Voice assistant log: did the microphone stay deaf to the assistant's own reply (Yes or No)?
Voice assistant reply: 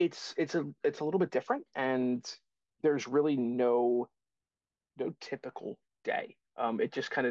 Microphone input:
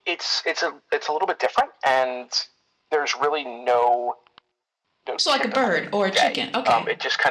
No